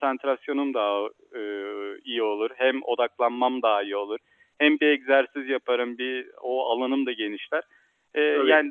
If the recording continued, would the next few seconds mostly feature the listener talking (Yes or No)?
No